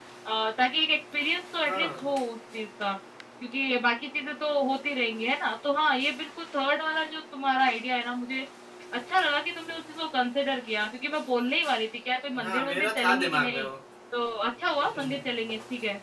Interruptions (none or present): present